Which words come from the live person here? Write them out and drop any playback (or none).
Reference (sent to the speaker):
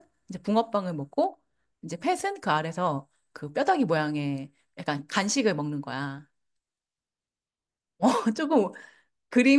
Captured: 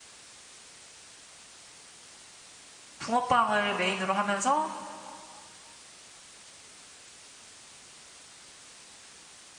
붕어빵을 메인으로 하면서